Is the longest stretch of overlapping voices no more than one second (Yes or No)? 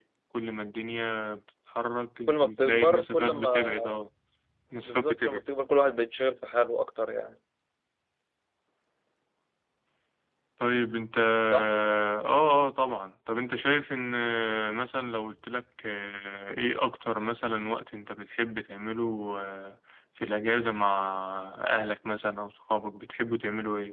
No